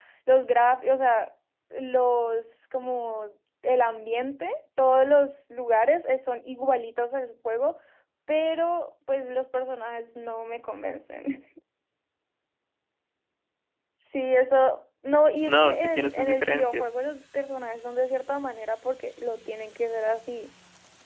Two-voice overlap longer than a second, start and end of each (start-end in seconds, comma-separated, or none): 15.5-16.8